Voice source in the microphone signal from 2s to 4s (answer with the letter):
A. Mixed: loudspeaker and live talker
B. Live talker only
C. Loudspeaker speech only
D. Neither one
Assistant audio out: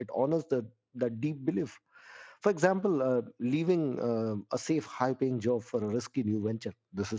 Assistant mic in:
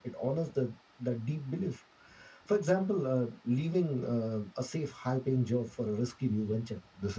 C